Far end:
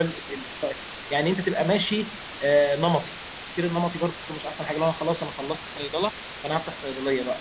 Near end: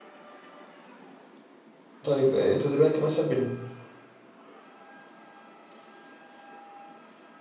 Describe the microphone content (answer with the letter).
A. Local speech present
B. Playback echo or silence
A